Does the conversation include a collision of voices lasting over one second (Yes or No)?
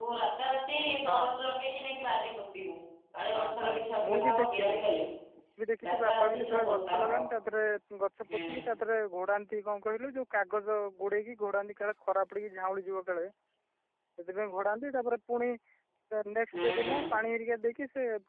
Yes